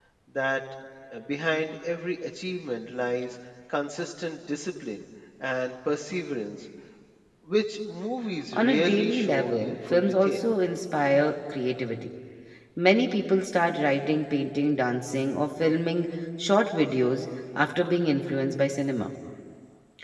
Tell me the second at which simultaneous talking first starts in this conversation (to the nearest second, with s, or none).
9 s